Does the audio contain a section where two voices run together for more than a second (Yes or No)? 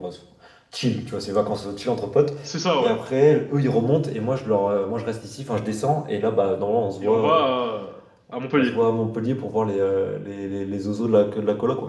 No